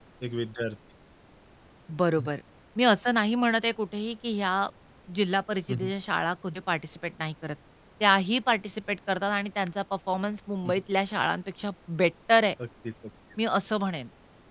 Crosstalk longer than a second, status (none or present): none